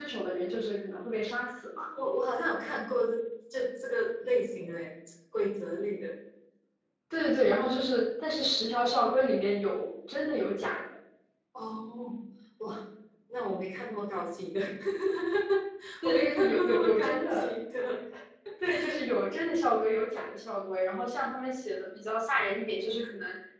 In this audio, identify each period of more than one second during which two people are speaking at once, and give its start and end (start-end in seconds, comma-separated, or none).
16.0-17.5